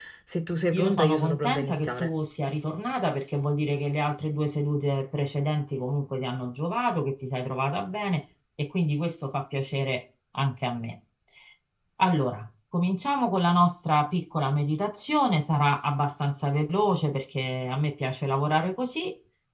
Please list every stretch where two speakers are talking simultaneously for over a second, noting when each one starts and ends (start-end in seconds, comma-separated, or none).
0.7-2.1